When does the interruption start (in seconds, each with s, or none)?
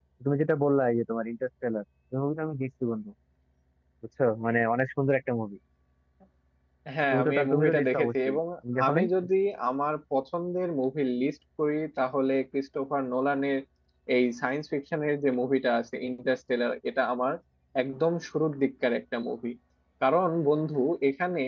7.1 s